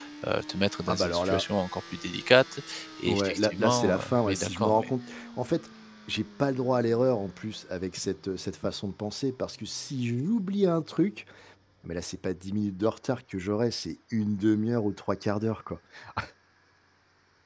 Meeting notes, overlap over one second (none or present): present